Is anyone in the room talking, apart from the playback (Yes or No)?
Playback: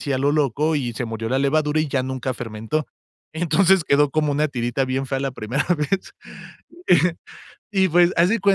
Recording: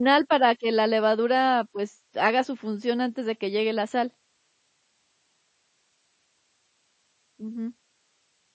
Yes